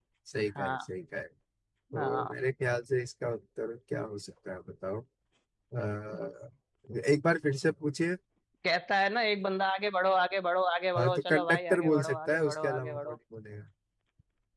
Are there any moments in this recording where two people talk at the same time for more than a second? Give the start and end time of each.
11.0-13.2

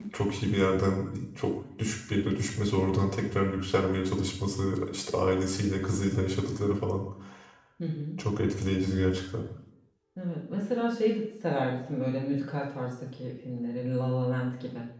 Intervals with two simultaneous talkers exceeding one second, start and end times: none

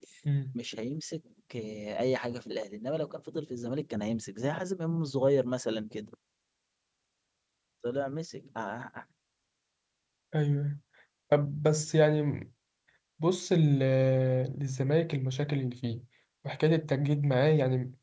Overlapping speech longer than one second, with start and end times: none

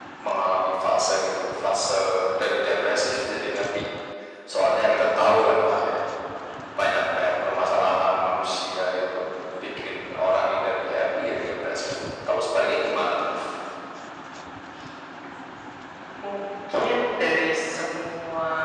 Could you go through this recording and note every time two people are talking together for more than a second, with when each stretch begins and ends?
none

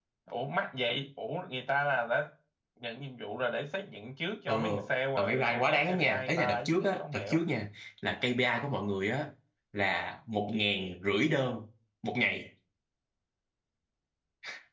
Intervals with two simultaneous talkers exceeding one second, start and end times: 5.2-7.5

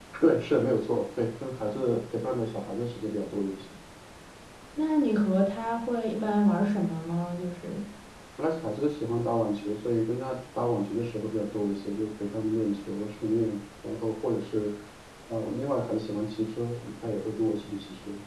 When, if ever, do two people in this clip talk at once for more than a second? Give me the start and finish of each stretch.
none

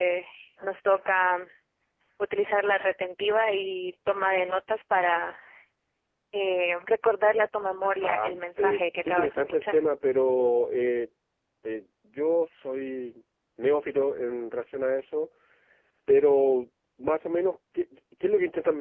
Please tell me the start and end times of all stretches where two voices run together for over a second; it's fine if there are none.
8.0-9.8

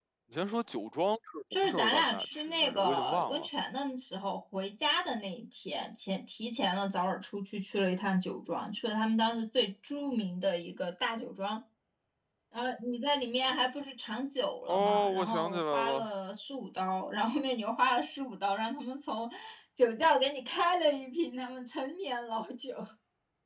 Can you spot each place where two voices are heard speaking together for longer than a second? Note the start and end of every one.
1.6-3.5, 14.7-16.1

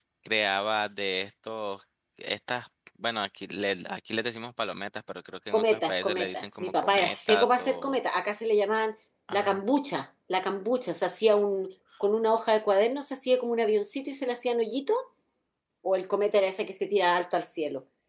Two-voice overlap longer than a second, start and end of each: 5.5-8.0

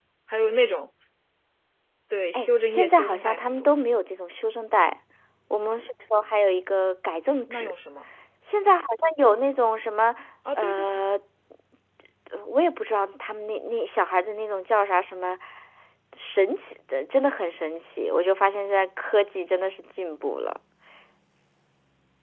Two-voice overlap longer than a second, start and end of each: 2.3-3.7

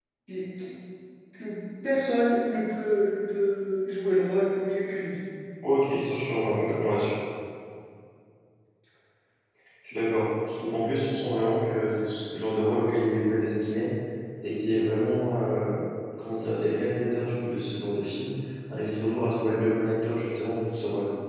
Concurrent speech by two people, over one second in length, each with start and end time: none

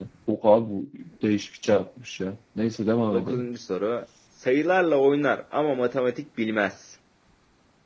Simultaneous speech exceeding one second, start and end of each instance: none

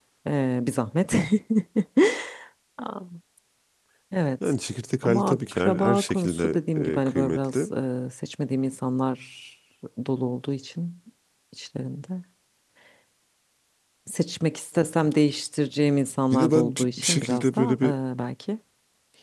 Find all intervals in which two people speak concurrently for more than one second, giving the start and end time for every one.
5.0-7.7, 16.3-17.8

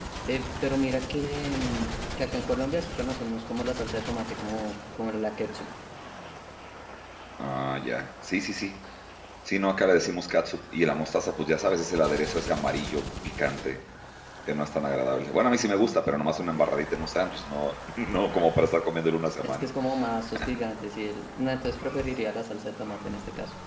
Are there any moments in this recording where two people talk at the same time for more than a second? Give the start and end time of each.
none

